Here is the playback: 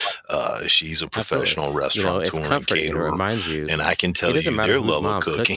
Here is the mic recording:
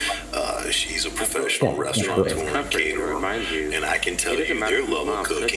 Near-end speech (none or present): present